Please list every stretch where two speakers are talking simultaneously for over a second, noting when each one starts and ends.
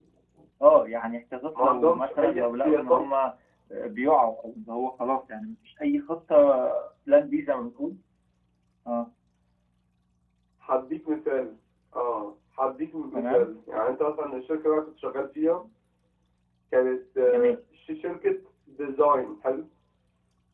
1.6-3.0

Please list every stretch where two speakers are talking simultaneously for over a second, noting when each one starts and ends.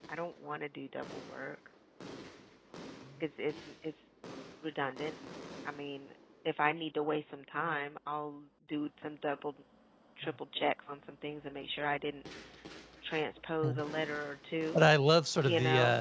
none

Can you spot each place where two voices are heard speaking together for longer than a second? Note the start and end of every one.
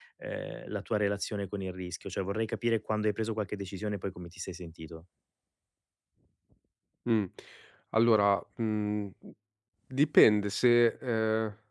none

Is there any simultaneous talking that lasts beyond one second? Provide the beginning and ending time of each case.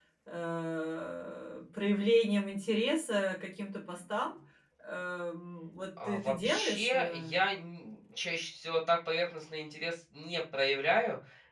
6.0-7.3

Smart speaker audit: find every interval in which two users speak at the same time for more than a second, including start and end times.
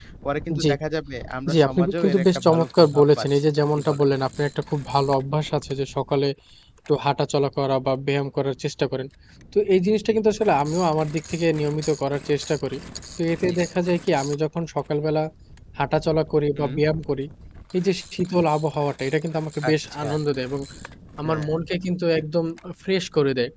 1.5-4.1

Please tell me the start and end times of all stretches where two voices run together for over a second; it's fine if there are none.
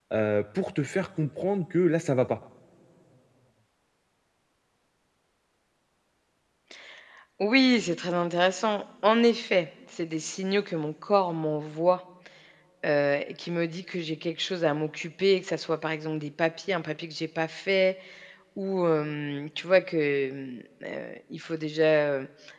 none

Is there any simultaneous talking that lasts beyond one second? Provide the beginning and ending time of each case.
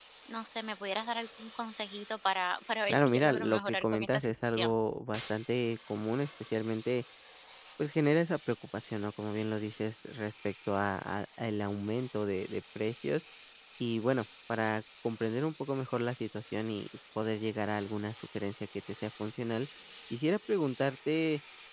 2.9-4.7

